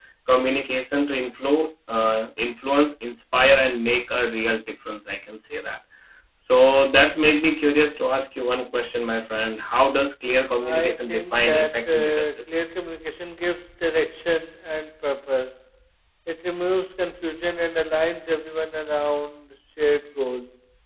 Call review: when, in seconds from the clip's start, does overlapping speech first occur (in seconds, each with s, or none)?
10.6 s